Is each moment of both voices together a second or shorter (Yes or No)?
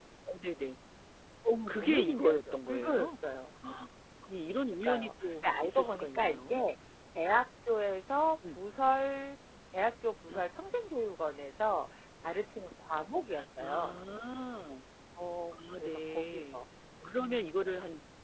No